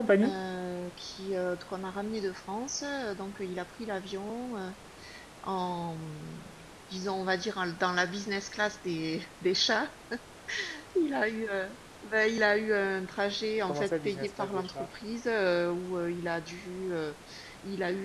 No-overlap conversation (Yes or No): No